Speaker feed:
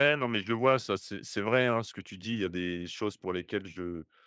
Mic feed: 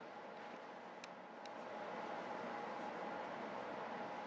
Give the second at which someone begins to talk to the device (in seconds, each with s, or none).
none